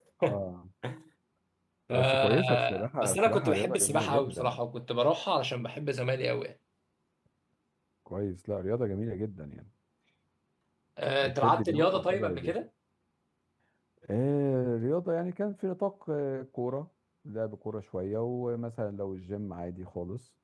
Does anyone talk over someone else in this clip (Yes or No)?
Yes